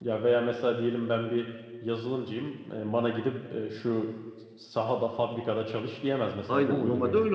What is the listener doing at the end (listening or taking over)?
taking over